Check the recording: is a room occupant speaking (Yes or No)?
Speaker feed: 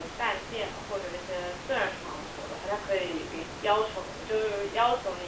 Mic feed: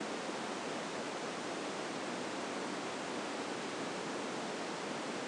No